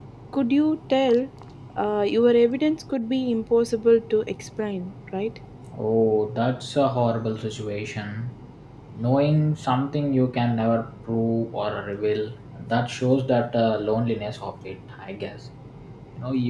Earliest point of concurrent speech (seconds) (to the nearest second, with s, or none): none